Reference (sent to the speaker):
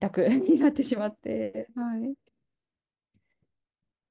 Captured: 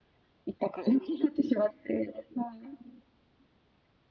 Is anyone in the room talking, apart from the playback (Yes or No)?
No